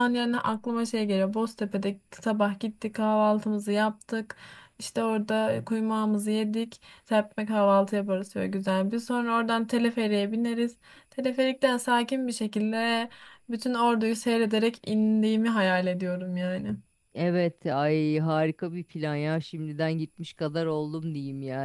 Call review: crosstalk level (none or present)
none